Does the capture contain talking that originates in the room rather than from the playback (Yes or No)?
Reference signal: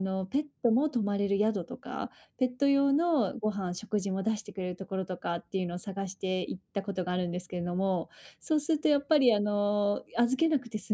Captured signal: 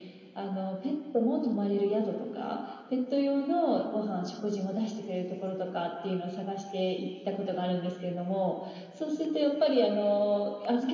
No